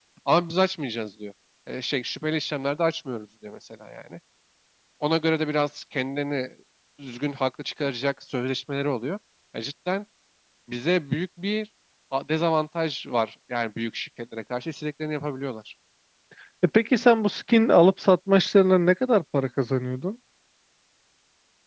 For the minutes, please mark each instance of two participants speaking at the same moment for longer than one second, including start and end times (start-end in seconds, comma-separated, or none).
none